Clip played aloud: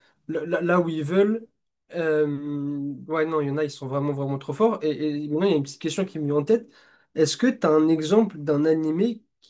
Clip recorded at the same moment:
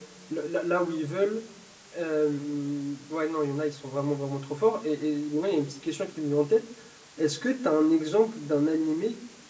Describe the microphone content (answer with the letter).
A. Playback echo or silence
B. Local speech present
A